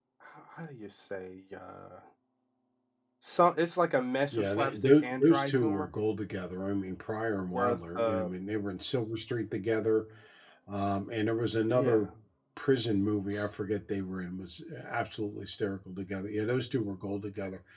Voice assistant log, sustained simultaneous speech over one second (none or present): present